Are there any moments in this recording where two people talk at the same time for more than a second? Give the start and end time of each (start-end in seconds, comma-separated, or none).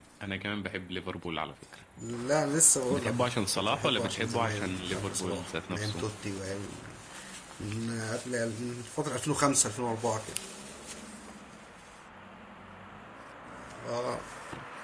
2.9-6.0